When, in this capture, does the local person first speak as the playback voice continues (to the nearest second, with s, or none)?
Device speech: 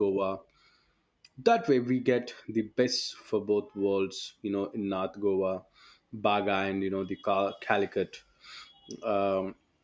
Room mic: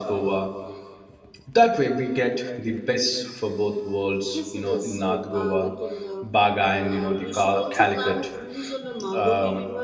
4 s